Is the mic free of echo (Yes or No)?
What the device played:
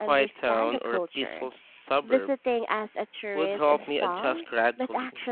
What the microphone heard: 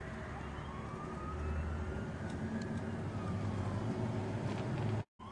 Yes